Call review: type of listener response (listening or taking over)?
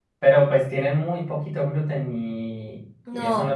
taking over